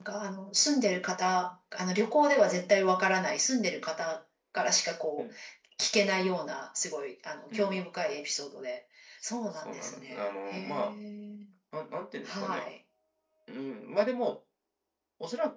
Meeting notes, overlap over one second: present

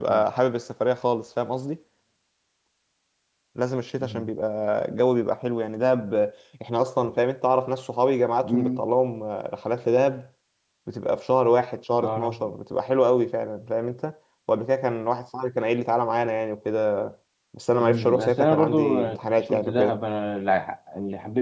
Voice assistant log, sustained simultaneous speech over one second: present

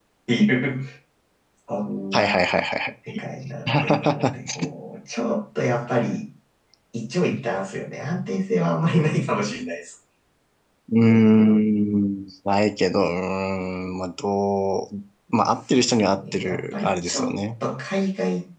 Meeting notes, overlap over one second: present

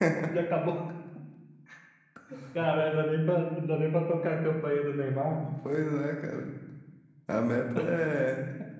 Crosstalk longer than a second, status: none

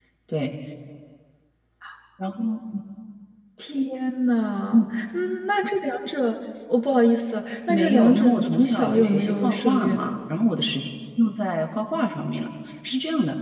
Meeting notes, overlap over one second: present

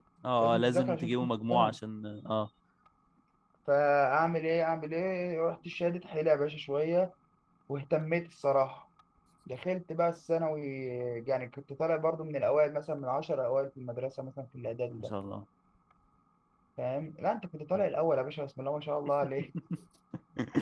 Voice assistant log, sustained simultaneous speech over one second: present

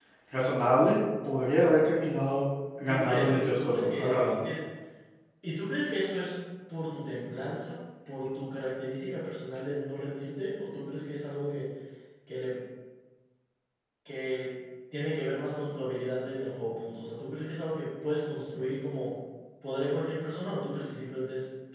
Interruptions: present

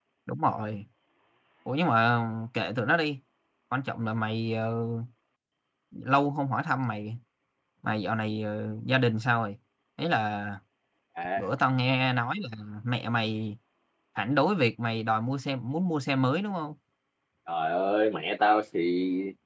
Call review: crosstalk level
none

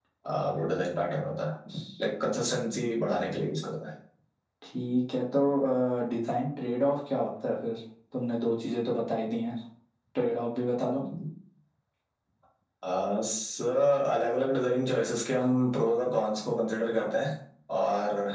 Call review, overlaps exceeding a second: none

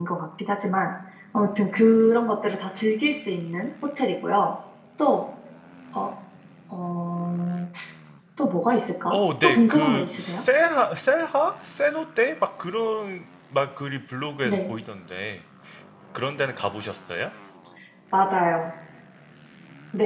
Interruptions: present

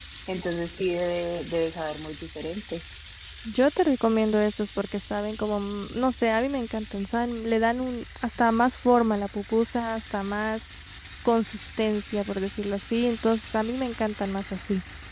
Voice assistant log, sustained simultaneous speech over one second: none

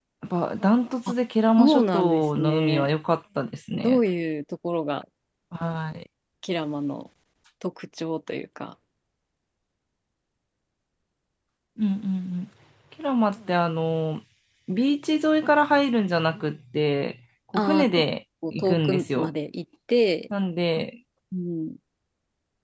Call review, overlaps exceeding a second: present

